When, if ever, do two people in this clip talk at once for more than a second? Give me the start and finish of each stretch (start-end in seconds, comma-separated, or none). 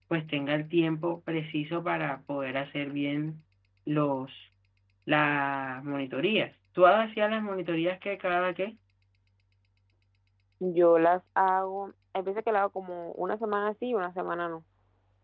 none